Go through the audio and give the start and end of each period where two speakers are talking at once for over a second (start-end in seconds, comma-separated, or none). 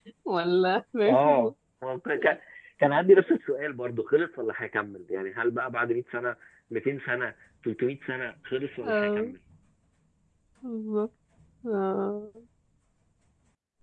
none